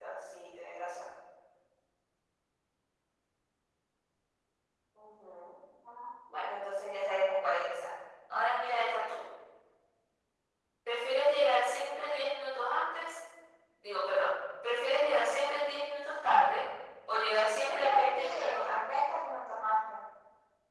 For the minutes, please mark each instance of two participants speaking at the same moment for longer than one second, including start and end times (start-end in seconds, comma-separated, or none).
17.7-19.0